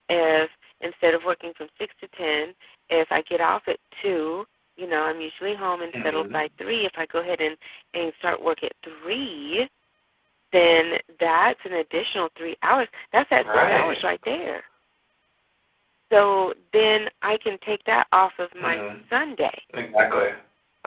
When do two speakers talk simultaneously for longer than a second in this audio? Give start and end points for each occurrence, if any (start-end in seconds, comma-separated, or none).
none